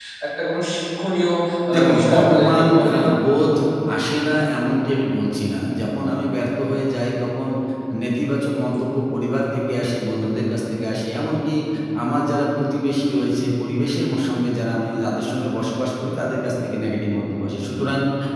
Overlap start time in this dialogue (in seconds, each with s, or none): 1.7 s